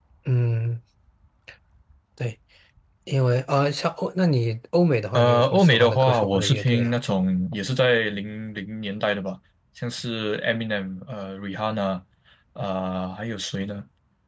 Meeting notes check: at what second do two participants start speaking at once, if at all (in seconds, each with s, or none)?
5.1 s